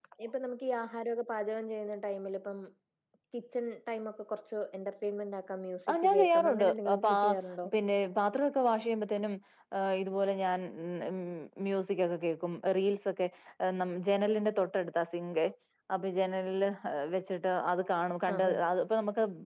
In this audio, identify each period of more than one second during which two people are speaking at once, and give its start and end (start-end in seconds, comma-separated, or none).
5.9-7.2